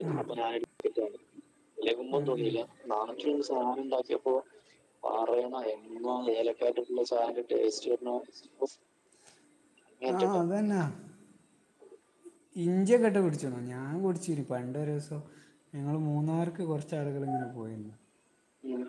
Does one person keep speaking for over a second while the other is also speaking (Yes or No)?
No